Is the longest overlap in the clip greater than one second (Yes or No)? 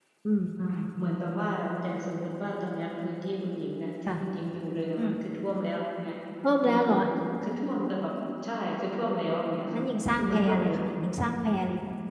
Yes